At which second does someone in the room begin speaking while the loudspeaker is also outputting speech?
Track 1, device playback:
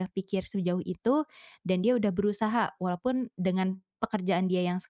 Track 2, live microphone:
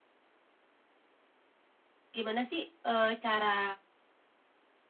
2.1 s

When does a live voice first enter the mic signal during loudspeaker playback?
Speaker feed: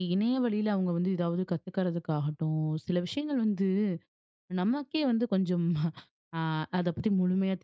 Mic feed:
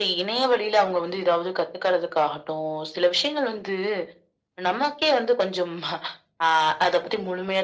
none

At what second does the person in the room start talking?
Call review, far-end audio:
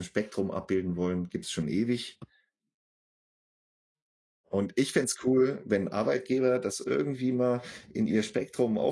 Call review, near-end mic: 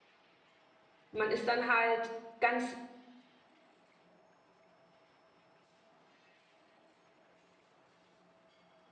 1.1 s

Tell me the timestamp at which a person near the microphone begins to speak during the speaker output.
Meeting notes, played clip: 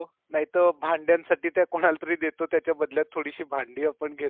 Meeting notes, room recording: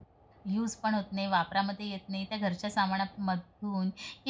0.5 s

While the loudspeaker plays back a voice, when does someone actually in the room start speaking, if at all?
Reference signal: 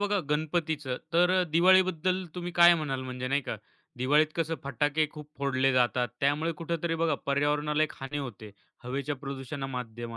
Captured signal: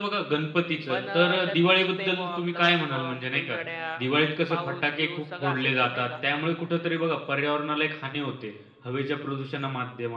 0.9 s

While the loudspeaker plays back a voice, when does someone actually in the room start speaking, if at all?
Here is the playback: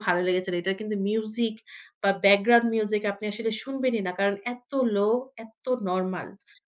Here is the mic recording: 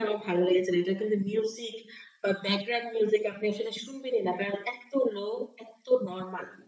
none

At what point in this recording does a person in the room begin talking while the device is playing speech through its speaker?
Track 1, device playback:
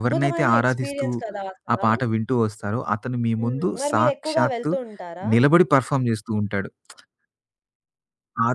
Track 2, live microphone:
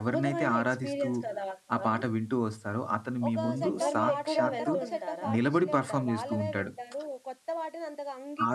3.3 s

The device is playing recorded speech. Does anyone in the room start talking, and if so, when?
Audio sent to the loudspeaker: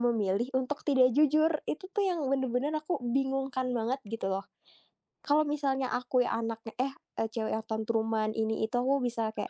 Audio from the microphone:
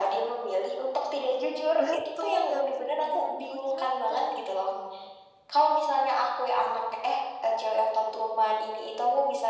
1.8 s

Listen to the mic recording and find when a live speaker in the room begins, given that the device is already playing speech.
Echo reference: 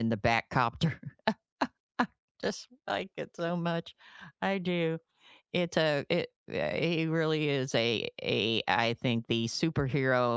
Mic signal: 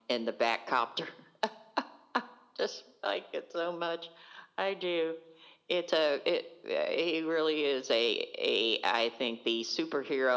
none

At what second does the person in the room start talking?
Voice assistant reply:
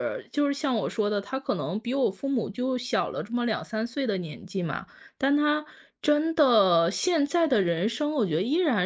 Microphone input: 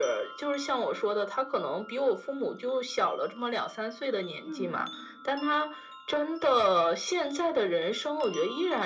4.4 s

